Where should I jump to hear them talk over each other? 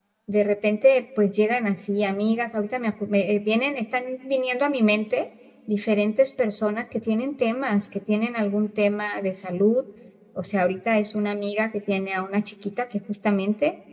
none

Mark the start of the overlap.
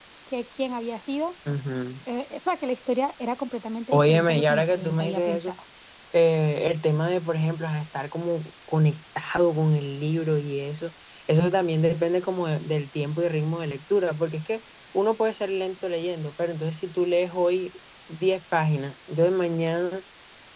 3.9 s

